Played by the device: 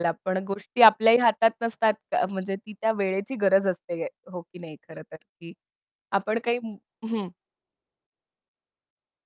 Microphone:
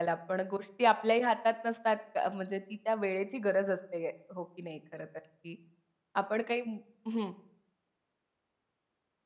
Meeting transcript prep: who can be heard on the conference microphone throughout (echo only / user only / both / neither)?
echo only